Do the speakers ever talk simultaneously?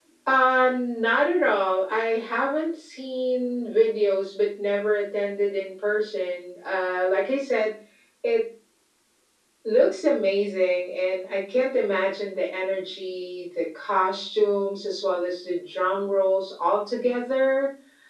No

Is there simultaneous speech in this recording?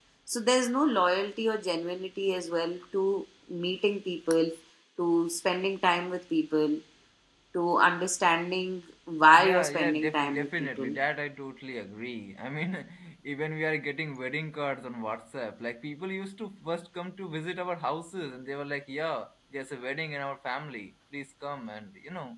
Yes, from 9.3 s

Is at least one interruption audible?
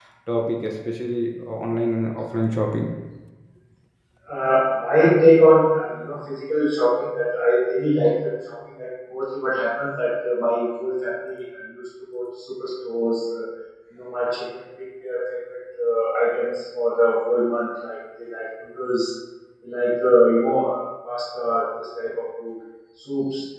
No

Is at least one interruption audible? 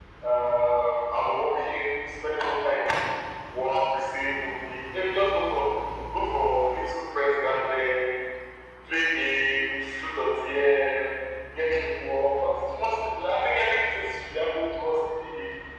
No

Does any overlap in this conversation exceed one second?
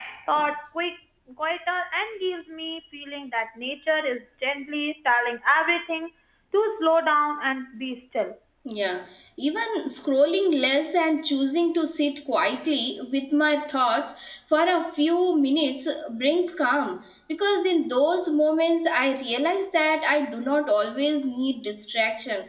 No

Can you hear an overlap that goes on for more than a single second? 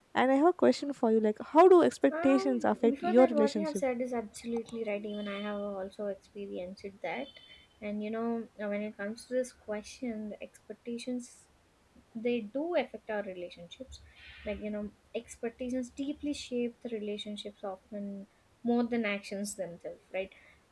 Yes, from 2.1 s

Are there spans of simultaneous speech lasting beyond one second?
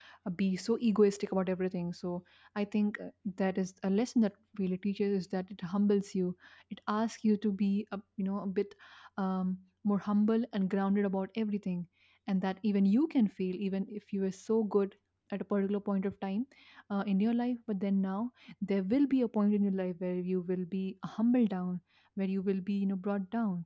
No

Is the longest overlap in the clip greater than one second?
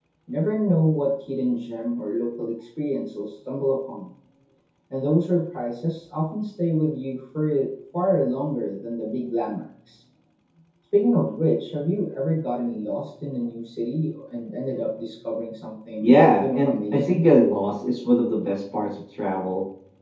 Yes, from 16.0 s

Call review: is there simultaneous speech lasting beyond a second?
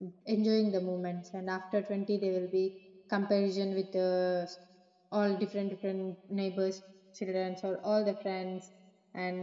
No

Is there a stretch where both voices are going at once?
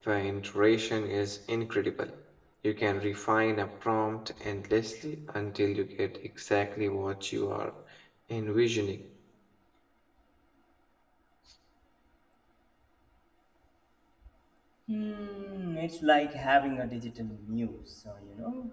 No

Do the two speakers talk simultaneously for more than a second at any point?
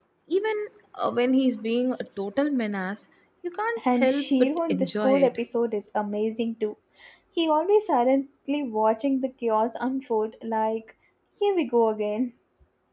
Yes, from 3.8 s

